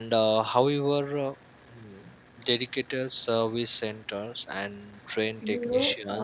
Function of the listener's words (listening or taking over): taking over